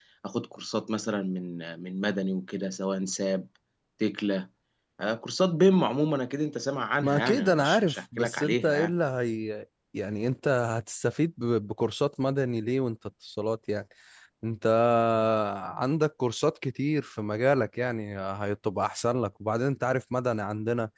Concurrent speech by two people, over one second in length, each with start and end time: 7.0-8.9

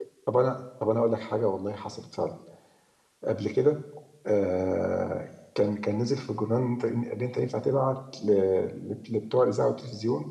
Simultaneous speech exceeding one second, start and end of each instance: none

